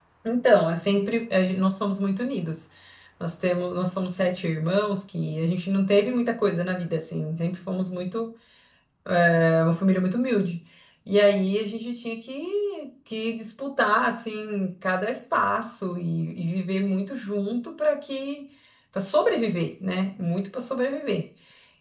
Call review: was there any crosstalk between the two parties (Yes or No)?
No